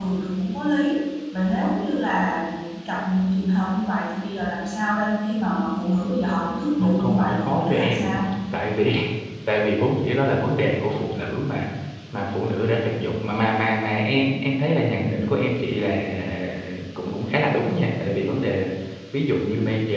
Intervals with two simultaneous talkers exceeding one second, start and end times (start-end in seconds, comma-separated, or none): 6.8-8.2